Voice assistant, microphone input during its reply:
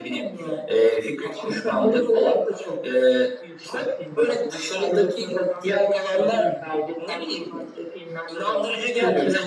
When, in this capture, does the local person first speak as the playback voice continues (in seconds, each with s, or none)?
none